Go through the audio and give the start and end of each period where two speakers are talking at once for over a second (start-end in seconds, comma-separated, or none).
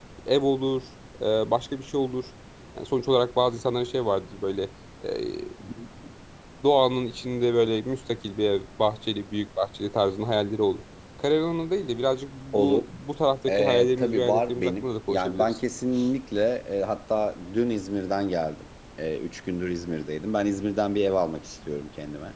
13.5-15.6